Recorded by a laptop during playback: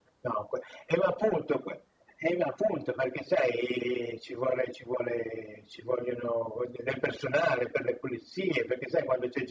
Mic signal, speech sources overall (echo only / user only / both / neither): echo only